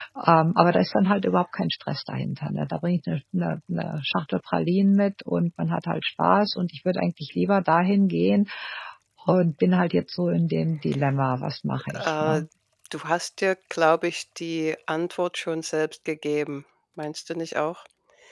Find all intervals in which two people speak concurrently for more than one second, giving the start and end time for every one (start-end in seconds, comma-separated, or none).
none